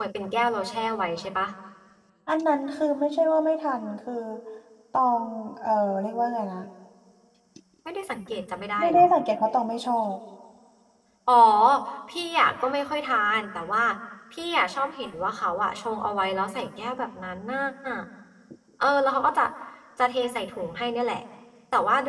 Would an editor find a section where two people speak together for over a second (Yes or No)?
No